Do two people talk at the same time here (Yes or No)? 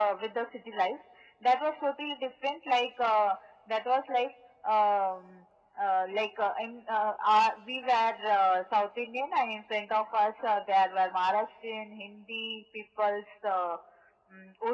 No